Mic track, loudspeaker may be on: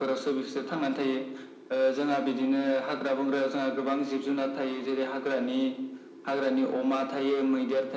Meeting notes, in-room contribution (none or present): none